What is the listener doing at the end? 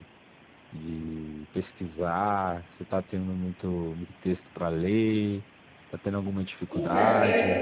taking over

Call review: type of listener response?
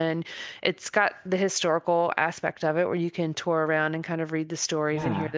listening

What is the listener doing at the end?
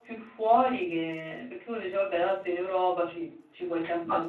taking over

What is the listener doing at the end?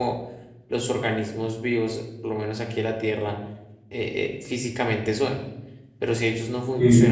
listening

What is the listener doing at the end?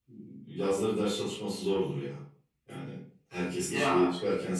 listening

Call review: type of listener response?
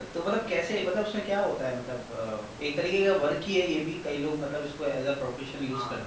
taking over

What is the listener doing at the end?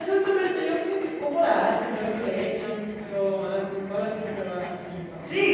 taking over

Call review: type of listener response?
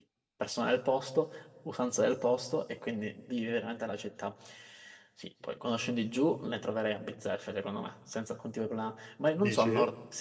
listening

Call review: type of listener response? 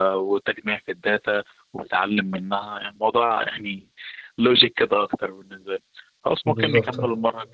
listening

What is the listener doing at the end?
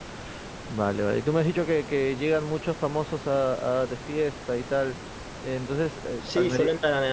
taking over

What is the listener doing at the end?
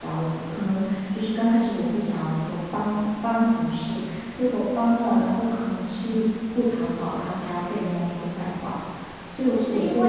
taking over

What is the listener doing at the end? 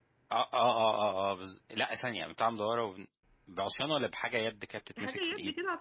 taking over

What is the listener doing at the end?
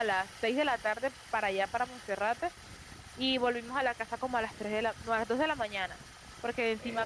listening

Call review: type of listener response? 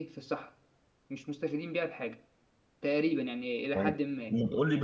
taking over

